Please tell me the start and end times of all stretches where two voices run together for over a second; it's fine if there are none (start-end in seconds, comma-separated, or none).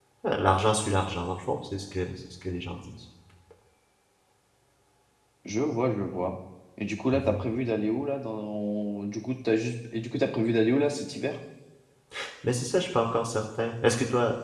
none